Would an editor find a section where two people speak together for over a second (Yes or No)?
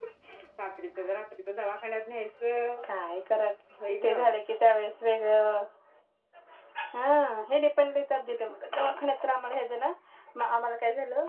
No